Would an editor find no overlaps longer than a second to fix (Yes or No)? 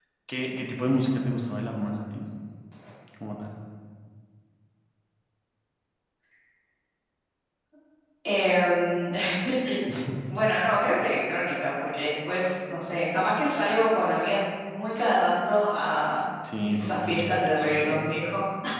No